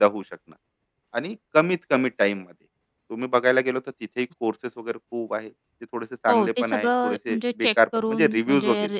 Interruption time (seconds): 6.3 s

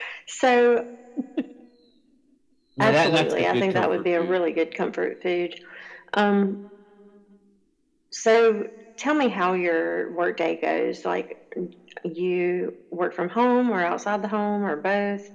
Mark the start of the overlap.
2.8 s

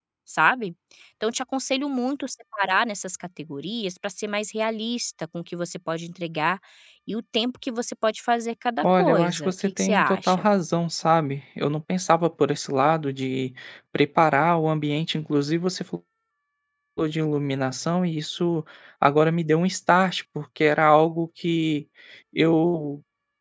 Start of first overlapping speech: 8.8 s

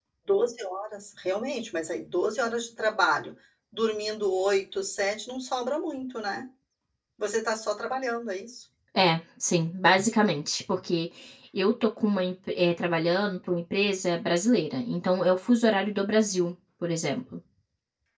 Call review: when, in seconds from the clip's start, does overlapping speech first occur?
none

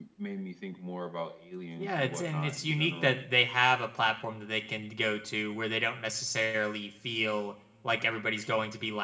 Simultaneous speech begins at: 1.8 s

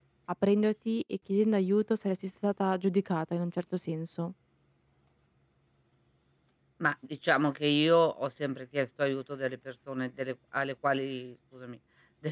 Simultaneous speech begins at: none

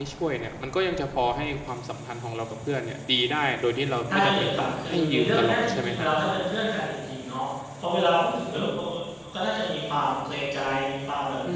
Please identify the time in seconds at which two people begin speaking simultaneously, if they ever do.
4.1 s

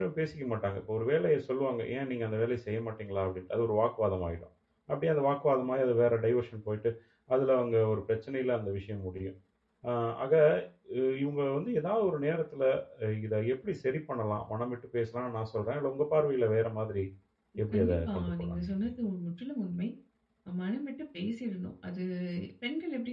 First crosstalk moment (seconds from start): 17.7 s

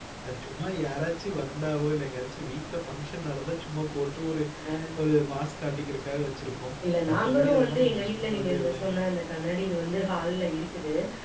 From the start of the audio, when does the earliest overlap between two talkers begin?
6.8 s

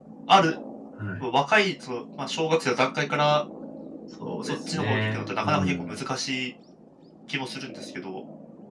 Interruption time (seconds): 4.4 s

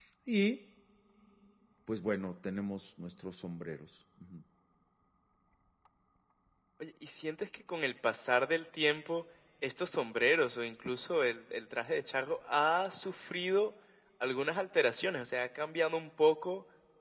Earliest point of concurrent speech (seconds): none

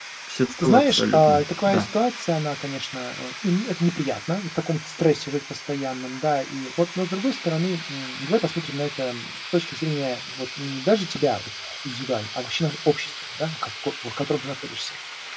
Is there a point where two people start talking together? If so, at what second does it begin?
0.6 s

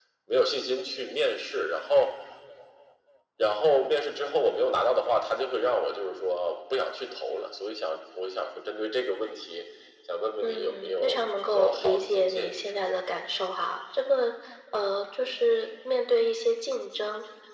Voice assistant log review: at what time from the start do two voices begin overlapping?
10.4 s

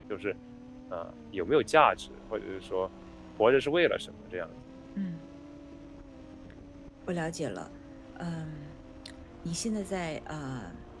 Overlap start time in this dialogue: none

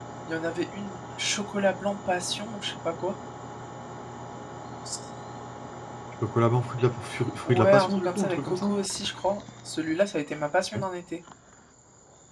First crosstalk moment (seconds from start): 7.5 s

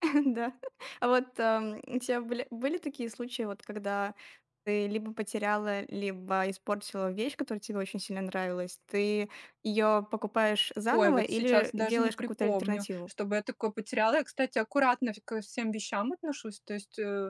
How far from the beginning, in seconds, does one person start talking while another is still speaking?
10.9 s

